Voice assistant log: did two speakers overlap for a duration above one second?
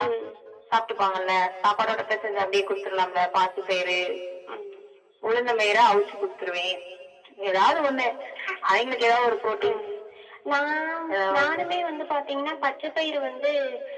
No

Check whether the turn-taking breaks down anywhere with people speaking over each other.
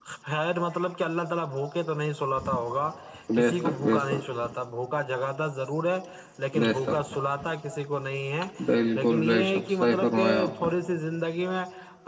Yes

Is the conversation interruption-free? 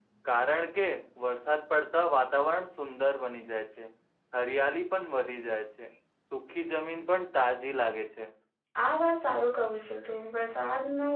Yes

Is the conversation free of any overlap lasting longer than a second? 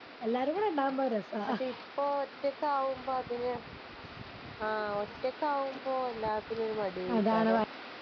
Yes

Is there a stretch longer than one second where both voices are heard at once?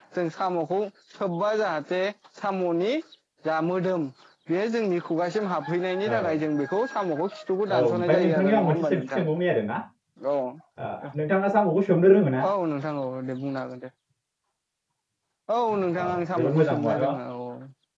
Yes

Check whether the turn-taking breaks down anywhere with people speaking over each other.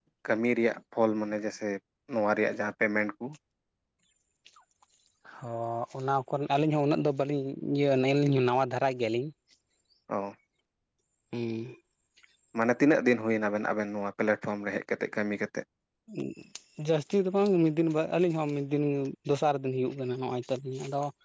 No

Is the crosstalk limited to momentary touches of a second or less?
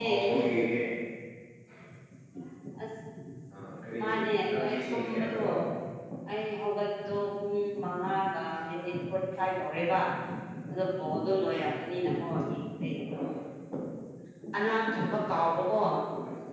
No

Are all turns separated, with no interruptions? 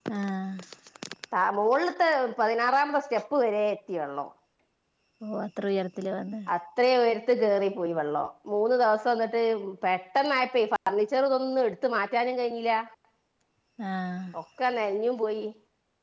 Yes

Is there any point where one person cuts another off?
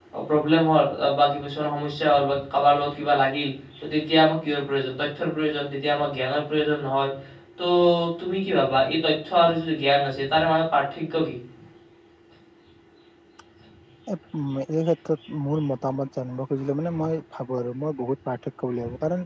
No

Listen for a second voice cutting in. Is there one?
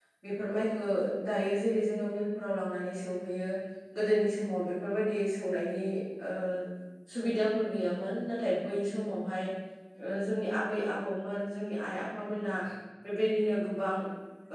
No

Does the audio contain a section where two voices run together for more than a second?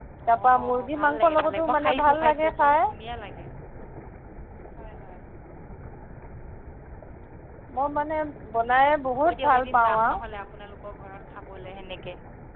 Yes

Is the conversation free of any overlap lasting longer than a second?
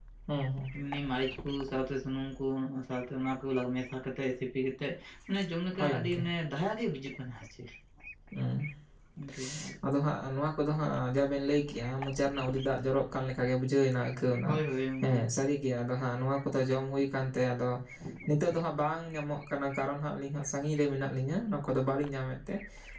Yes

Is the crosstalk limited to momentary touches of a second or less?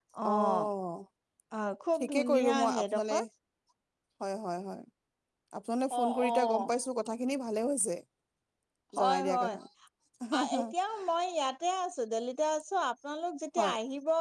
No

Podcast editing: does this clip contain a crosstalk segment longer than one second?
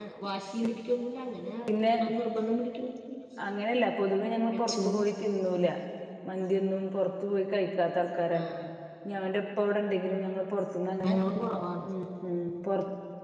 No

